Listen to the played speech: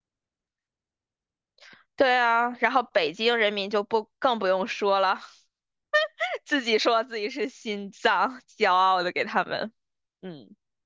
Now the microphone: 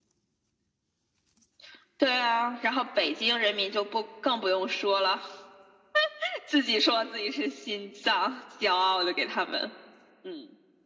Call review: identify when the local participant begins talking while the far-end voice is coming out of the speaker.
none

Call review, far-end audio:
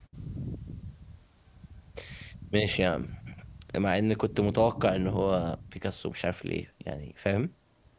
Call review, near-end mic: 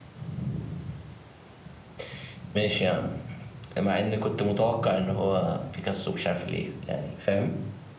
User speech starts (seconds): none

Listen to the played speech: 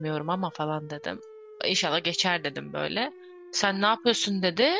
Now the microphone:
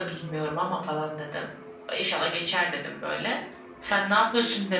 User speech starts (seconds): none

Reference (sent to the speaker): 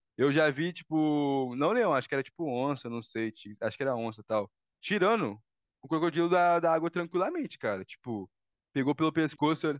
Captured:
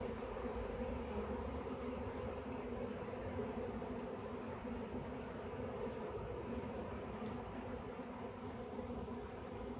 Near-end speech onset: none

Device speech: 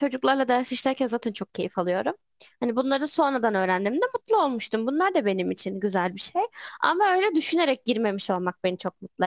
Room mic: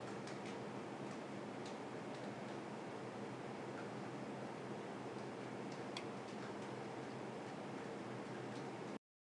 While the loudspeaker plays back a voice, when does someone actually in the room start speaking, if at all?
none

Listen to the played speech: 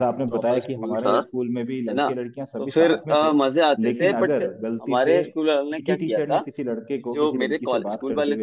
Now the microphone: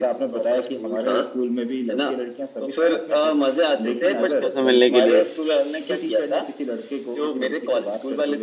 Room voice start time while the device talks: 4.1 s

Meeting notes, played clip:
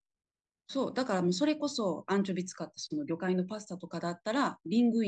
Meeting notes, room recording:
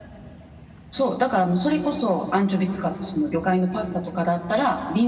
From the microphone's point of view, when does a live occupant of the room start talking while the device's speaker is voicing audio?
none

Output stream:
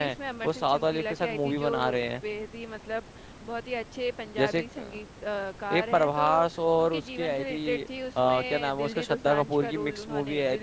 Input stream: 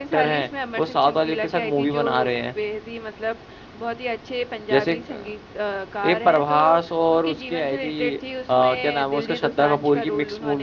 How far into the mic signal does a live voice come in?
none

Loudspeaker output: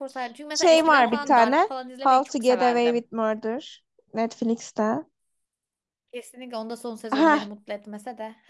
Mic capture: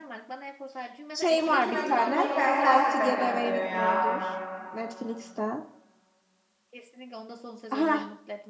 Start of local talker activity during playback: 1.4 s

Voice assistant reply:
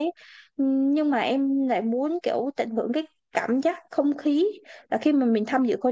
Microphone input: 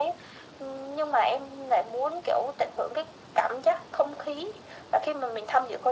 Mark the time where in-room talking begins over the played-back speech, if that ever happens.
none

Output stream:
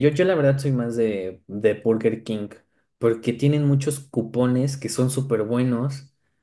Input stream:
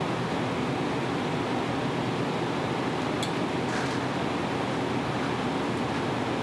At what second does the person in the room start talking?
none

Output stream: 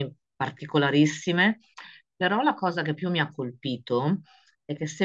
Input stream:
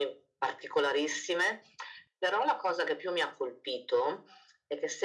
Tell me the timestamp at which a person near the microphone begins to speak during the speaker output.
none

